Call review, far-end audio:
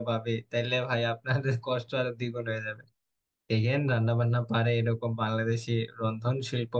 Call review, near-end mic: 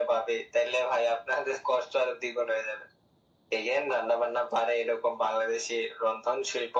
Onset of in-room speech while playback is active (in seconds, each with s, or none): none